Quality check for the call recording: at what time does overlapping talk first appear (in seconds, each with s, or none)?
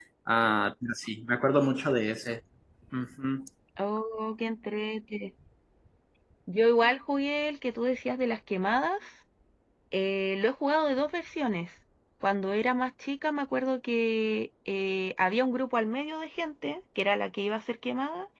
none